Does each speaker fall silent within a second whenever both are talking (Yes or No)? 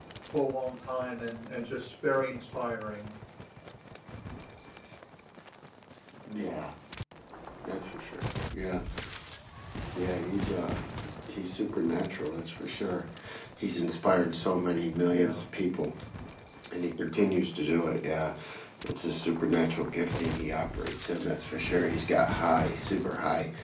Yes